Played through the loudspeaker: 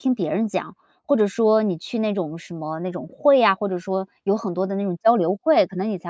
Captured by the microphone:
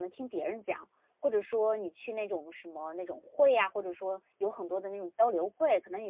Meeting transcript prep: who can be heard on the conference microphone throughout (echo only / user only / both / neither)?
echo only